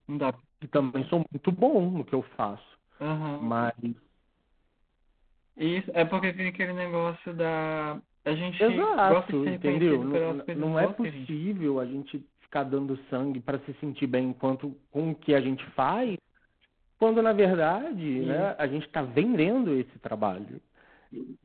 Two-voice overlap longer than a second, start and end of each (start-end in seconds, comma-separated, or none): 8.6-11.3